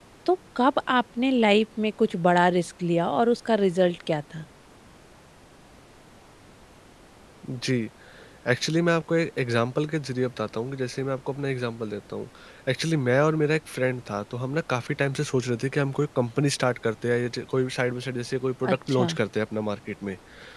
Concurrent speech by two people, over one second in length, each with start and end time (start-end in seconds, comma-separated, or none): none